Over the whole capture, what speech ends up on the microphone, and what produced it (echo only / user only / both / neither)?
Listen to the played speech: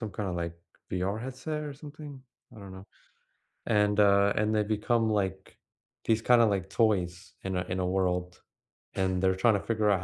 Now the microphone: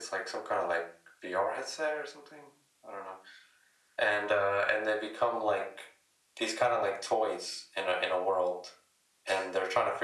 echo only